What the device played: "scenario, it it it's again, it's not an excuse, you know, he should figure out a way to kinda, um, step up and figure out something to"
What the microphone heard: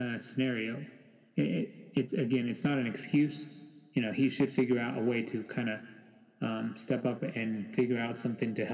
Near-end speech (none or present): none